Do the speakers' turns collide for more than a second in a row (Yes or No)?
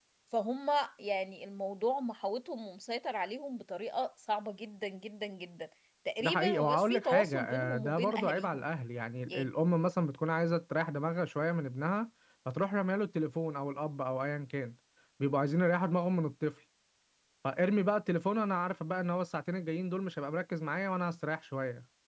Yes